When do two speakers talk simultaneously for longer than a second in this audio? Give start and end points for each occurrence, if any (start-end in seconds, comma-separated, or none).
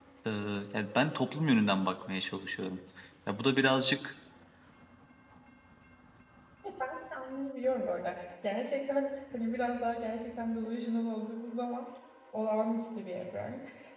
none